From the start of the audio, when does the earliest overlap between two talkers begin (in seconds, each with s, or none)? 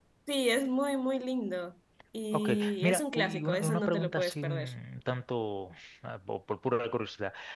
2.3 s